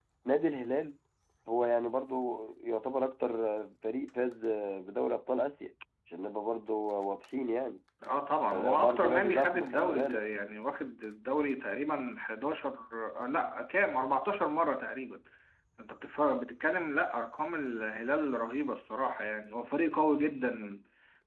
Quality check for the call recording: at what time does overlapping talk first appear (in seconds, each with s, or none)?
8.5 s